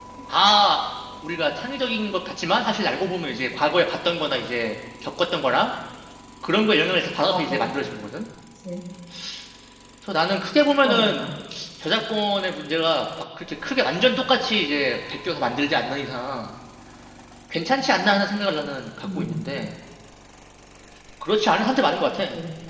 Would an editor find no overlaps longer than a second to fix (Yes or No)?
Yes